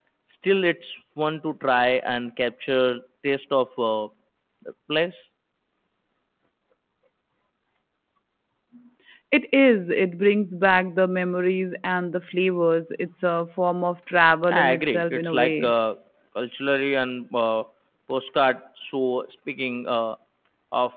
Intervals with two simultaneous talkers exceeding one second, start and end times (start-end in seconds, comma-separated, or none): 14.5-15.7